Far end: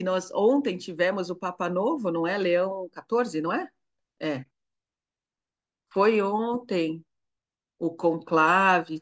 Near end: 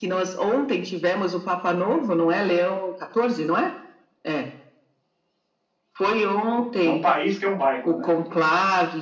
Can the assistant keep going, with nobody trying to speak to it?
No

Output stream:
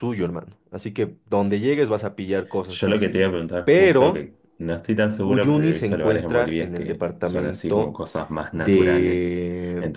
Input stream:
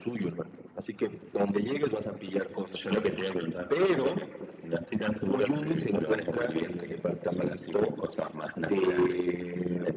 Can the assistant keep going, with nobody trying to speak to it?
No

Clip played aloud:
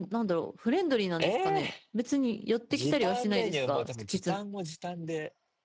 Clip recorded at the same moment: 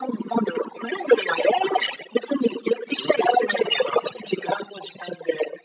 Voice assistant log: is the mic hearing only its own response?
Yes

